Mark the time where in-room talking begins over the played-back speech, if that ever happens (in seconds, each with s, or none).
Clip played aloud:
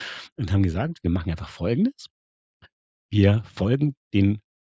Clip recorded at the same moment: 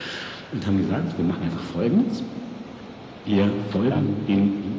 3.9 s